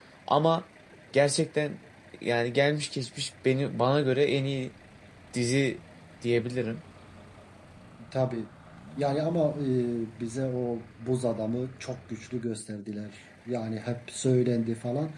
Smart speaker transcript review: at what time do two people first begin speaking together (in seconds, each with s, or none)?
none